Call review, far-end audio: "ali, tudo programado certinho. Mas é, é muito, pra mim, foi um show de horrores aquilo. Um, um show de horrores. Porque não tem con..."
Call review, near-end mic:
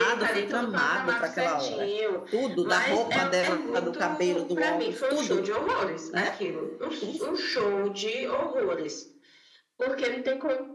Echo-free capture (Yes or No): No